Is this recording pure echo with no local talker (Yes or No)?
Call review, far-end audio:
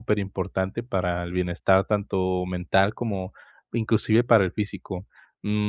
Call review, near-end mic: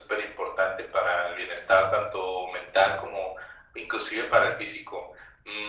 Yes